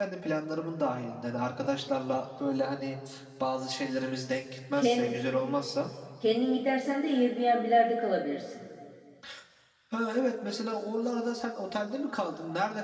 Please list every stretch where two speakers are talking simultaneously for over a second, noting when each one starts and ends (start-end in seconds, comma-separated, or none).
none